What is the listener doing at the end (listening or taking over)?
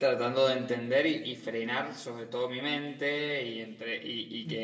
listening